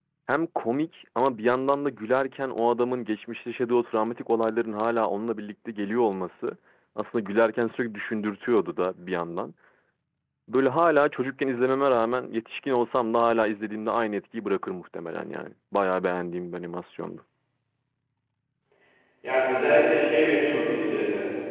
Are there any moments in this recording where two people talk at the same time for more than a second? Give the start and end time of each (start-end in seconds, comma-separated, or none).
none